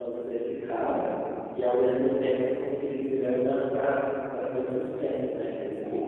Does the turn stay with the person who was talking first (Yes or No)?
No